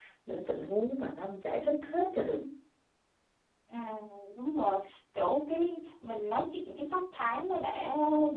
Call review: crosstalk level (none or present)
none